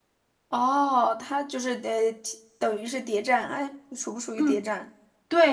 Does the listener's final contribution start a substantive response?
Yes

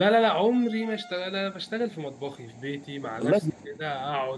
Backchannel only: Yes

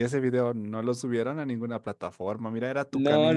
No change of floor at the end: No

